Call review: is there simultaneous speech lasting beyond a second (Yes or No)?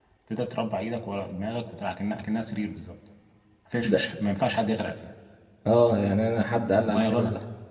No